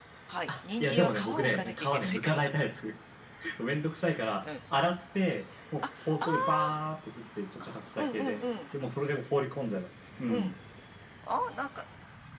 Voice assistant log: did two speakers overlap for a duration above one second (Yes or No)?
Yes